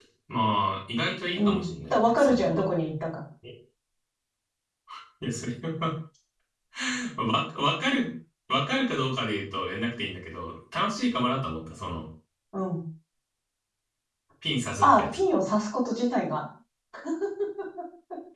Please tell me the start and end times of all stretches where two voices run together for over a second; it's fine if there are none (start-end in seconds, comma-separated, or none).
1.3-2.6